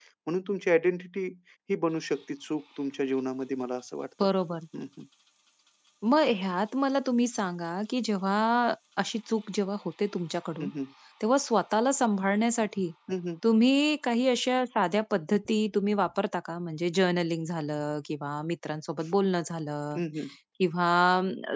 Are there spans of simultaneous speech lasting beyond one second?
No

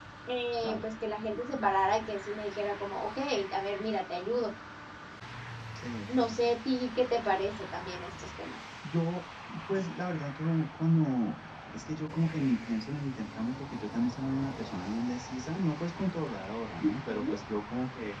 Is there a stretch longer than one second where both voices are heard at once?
No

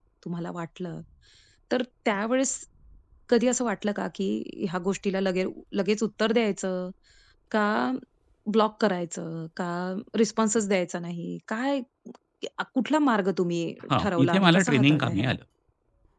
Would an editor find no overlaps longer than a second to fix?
No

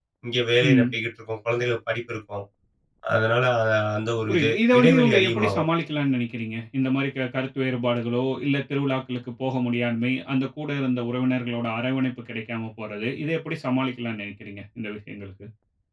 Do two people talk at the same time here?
Yes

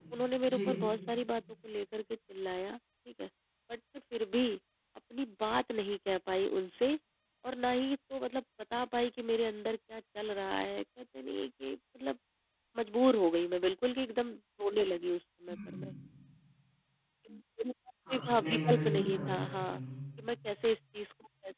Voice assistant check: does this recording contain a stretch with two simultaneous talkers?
Yes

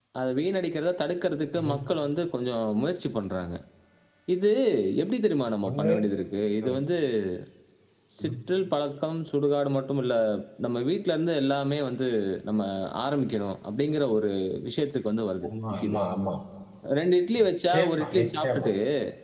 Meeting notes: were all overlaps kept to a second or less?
No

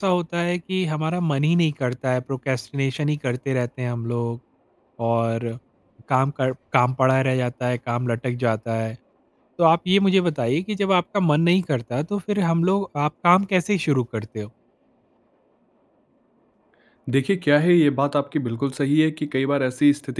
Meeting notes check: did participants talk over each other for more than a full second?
No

